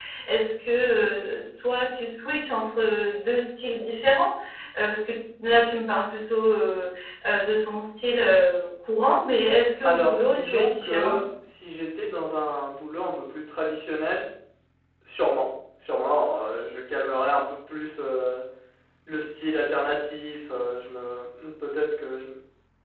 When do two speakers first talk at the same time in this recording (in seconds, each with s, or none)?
9.8 s